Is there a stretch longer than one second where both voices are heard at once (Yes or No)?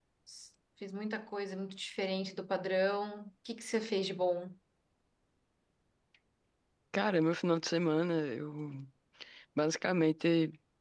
No